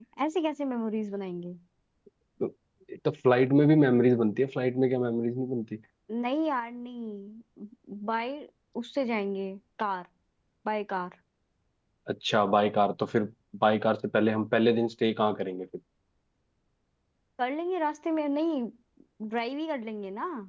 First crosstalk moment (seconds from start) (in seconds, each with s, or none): none